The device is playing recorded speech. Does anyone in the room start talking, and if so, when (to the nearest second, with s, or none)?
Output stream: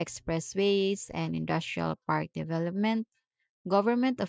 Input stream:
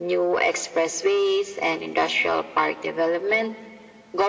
none